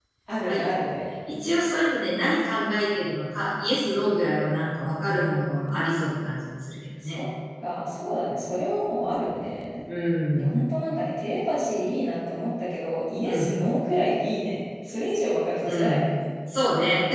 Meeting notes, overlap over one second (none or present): none